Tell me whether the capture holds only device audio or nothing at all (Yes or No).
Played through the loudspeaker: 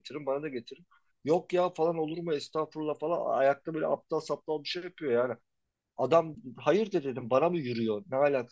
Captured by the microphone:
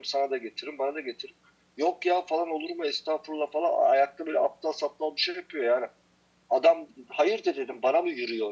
Yes